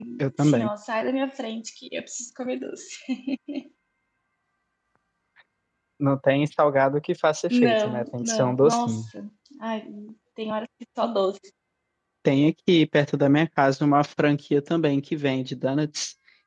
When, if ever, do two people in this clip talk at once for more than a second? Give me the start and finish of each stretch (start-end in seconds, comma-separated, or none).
7.5-9.0